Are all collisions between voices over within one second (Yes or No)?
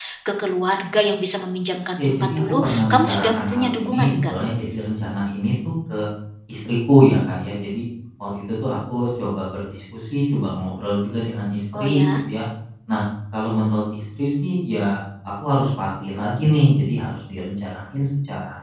No